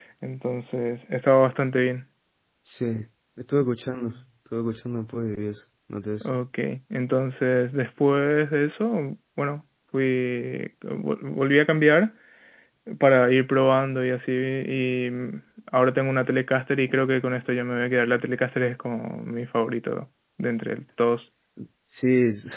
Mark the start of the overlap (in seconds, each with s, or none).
none